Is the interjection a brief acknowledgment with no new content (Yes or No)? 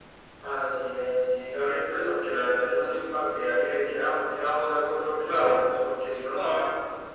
Yes